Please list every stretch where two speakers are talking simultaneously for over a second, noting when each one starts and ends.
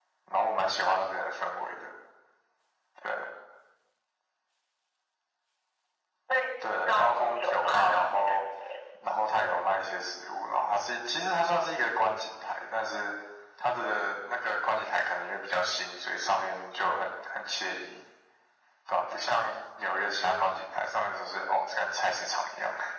6.7-8.4

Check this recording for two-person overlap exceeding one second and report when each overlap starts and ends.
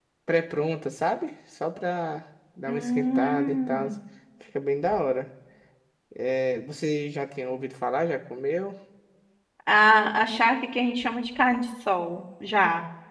2.7-3.9

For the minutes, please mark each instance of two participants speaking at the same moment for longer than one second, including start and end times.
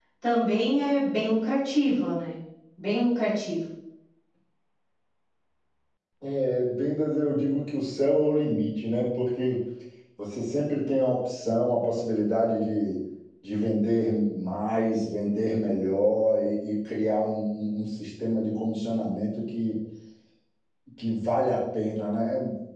none

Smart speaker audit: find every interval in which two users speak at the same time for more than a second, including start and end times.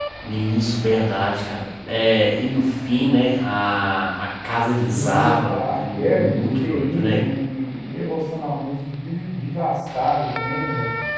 5.2-7.2

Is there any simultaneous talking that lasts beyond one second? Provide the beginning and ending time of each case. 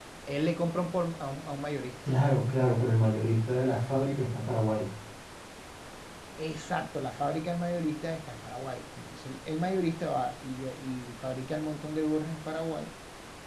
none

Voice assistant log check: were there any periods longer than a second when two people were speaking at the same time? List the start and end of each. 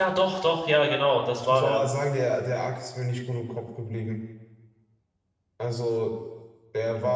none

